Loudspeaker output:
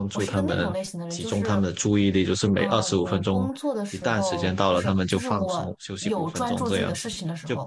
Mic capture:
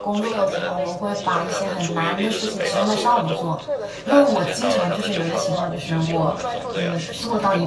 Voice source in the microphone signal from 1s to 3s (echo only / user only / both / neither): both